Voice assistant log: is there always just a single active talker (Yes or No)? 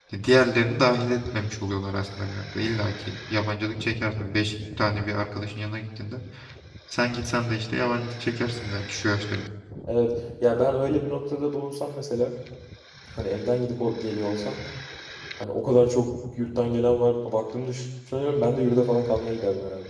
Yes